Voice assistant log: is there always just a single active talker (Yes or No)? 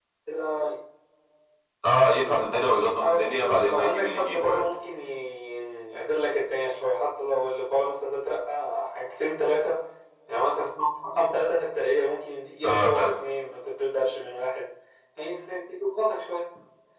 No